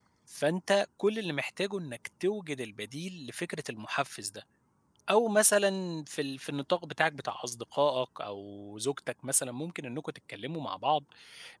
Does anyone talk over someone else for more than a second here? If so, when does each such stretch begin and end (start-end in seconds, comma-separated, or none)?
none